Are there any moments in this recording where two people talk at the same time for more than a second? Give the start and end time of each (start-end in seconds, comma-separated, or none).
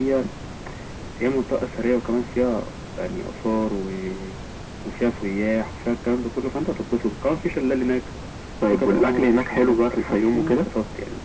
8.7-10.6